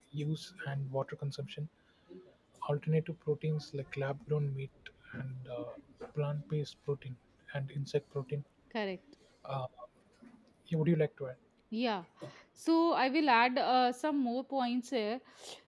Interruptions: none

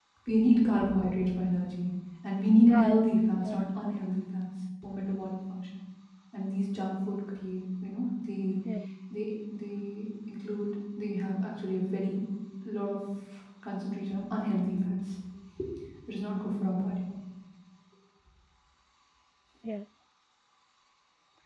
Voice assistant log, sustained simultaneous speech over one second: present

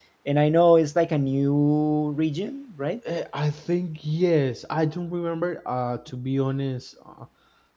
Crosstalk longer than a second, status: none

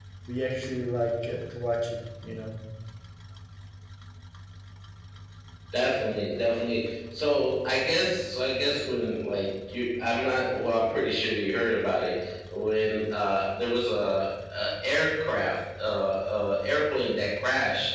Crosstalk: none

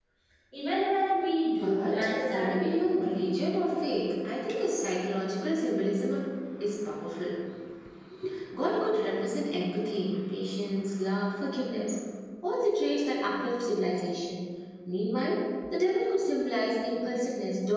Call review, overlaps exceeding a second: present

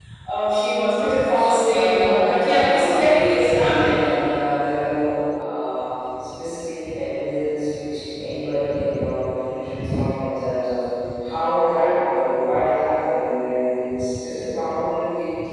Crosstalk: present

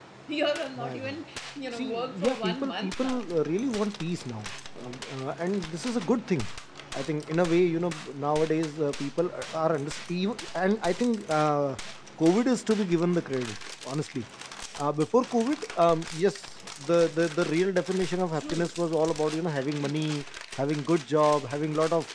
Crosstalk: present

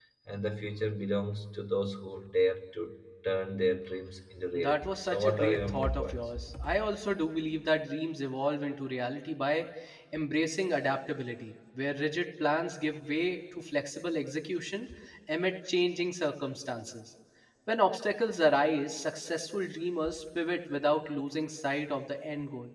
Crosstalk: present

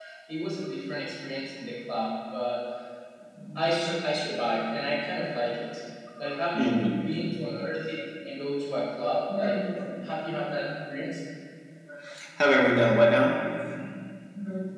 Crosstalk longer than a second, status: none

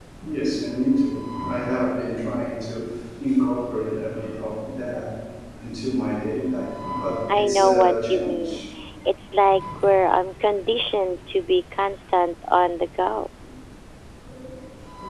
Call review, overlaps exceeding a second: present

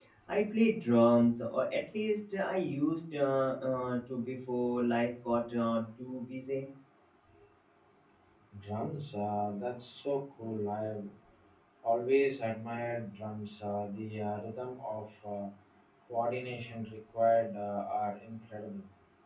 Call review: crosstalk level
none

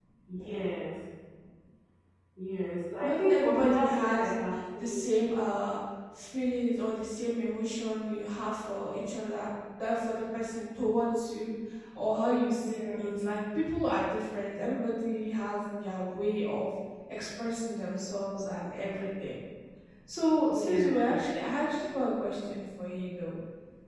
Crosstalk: present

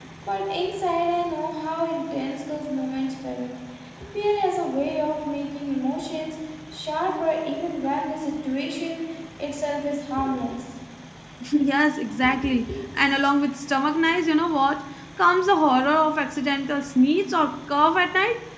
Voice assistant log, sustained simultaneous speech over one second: none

